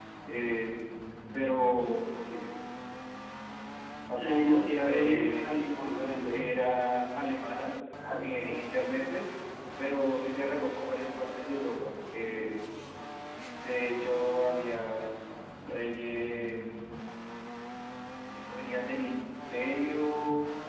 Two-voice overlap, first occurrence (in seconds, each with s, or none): 4.2 s